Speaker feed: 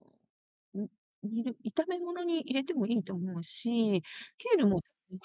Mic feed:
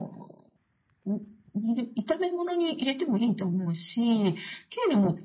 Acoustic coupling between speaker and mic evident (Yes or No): Yes